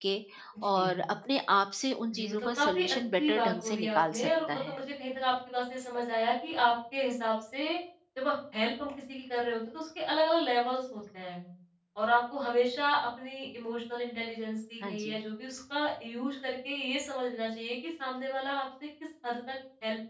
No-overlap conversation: No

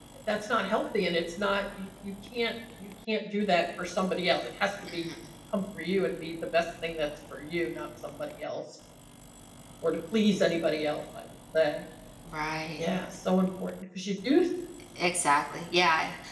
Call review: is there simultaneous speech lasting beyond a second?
No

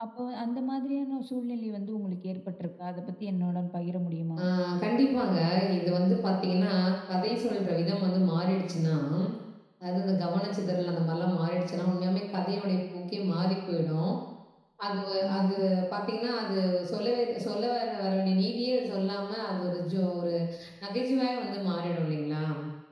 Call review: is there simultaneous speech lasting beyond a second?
No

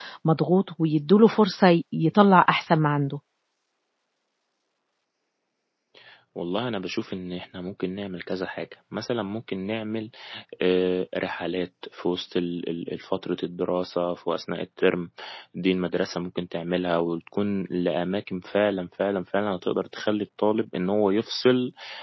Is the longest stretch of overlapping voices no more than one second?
Yes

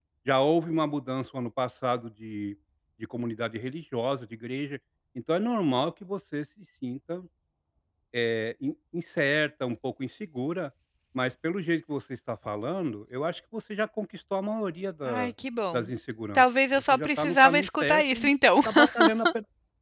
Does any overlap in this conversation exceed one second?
Yes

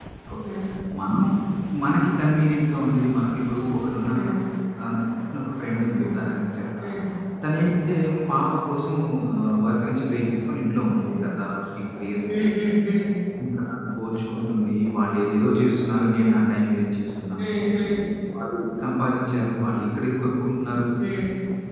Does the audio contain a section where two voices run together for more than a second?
No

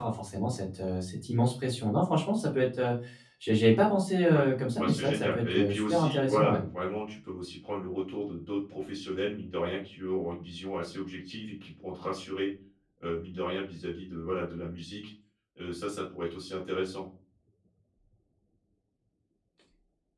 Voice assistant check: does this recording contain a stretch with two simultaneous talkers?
Yes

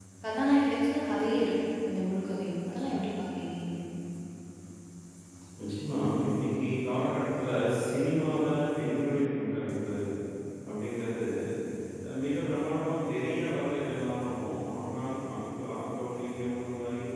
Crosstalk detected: No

